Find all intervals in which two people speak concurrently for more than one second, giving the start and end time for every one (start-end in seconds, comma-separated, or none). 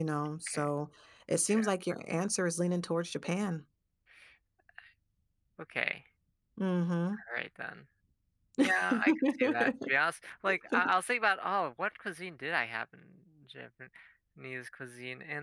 8.6-9.9